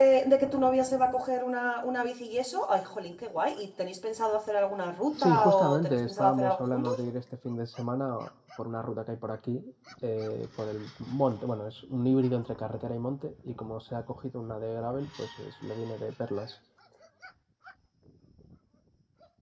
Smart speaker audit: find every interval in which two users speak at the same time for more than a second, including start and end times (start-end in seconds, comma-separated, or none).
5.2-6.9